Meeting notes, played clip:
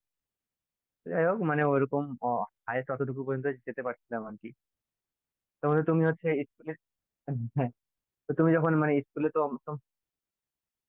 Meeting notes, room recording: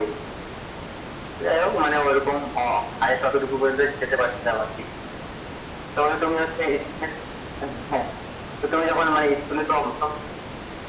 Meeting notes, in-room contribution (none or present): none